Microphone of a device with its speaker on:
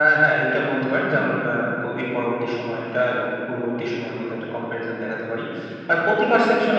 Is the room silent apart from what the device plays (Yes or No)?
Yes